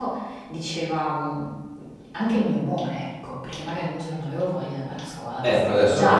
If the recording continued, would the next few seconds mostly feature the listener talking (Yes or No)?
Yes